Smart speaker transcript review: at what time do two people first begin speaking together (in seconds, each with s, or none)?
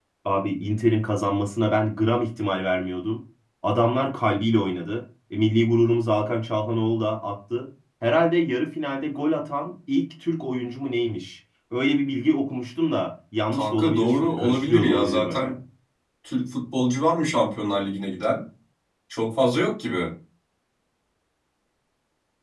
13.5 s